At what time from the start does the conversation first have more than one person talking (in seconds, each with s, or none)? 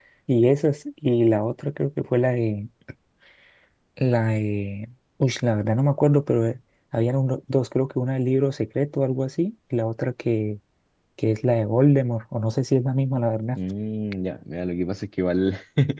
none